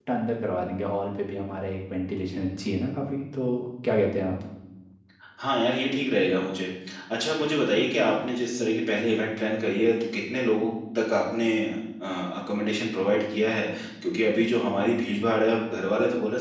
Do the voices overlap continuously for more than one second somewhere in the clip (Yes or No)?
No